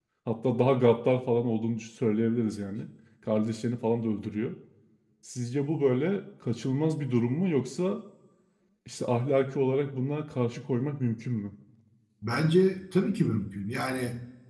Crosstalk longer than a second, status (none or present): none